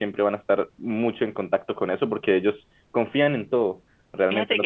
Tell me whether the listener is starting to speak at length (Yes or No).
Yes